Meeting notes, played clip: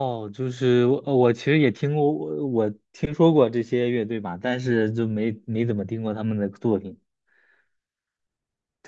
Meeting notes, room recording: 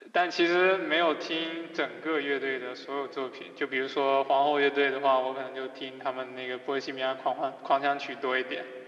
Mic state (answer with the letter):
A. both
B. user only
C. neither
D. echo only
B